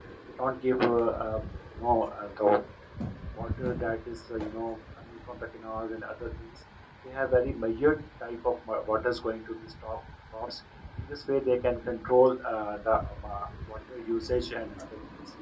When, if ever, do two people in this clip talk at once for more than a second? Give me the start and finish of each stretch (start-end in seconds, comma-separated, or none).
none